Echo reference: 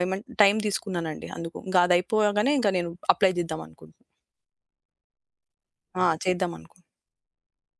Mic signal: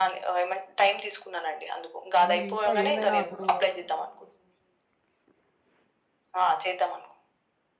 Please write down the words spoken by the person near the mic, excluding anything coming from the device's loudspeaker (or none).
మీరు ఇంకా ఏమైనా అప్పుడు